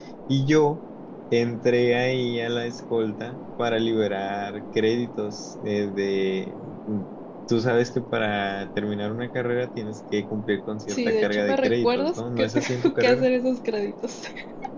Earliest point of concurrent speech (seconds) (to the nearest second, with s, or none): 11 s